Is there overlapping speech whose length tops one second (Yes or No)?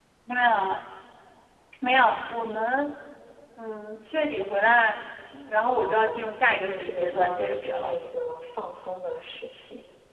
Yes